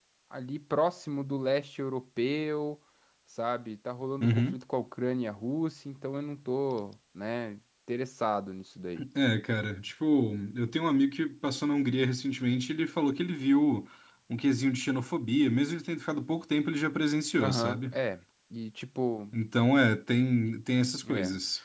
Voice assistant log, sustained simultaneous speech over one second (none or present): none